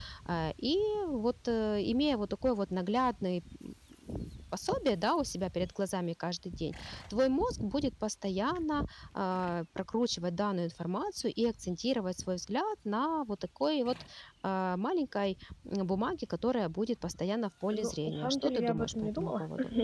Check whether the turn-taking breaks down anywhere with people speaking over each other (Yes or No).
Yes